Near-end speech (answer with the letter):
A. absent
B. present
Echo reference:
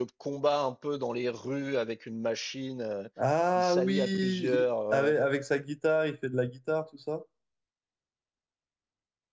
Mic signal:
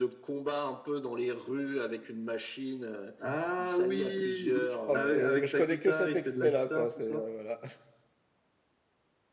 B